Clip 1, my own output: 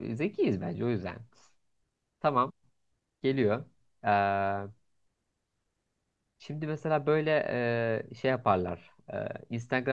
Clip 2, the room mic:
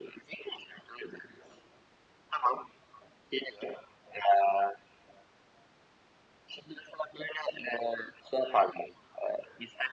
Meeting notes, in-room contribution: none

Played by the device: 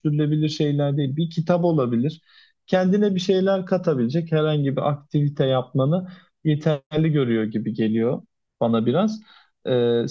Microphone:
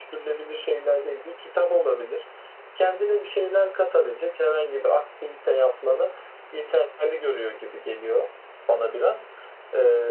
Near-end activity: none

